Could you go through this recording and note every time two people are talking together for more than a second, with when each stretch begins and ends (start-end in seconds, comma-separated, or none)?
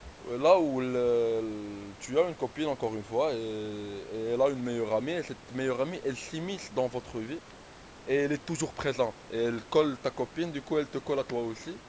none